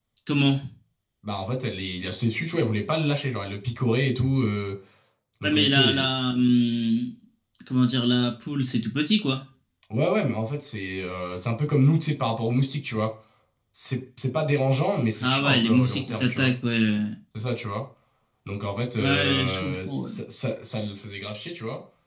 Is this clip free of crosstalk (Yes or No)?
No